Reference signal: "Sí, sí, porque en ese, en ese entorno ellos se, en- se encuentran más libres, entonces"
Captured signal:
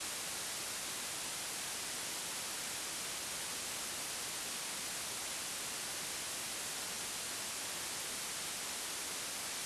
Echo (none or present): none